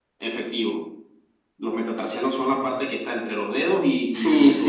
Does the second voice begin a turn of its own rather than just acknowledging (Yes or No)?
Yes